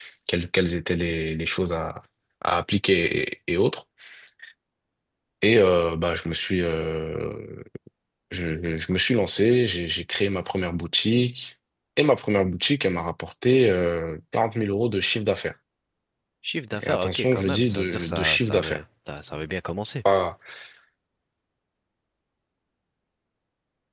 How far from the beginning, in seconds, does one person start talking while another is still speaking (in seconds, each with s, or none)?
16.8 s